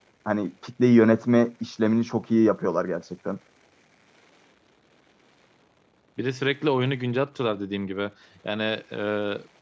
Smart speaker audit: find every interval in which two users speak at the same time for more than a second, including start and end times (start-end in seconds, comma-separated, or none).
none